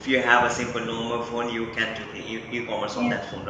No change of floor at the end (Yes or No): No